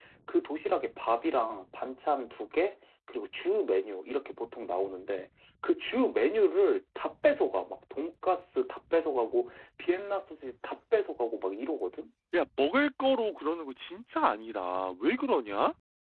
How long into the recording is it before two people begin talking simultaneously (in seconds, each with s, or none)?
none